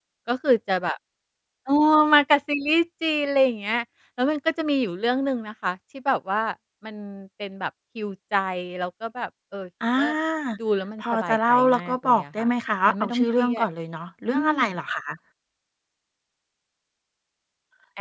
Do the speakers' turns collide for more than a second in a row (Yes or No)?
Yes